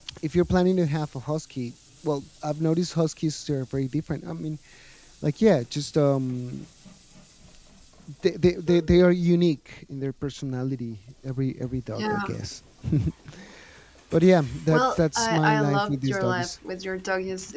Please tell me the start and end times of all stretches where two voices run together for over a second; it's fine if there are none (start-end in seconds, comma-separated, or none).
14.7-16.5